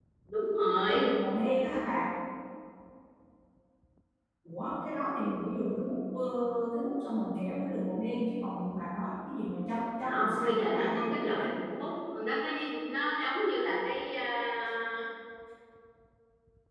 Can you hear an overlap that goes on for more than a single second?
Yes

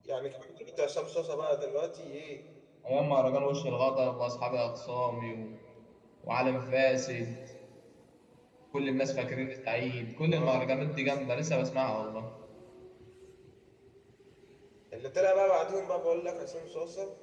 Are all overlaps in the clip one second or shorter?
Yes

